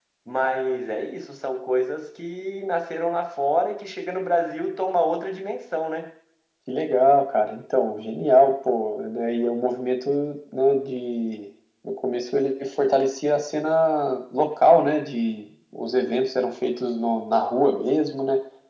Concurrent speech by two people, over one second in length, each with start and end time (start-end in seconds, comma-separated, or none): none